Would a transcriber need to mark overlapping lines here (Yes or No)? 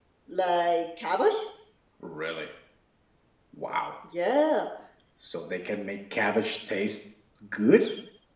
No